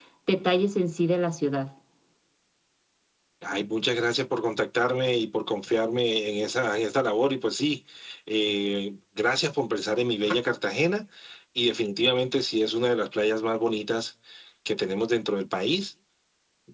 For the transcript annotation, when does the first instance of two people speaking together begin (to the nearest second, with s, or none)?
none